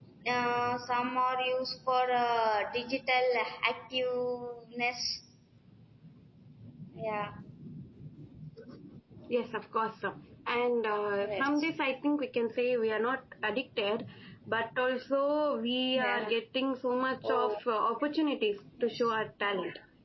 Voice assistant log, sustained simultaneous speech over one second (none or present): none